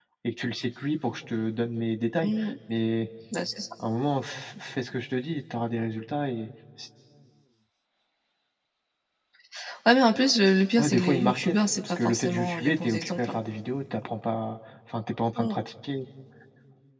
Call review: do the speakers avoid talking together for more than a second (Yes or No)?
No